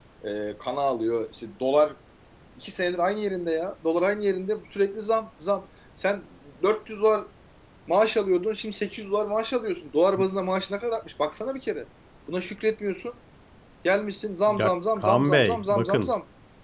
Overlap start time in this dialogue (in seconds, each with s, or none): 14.5 s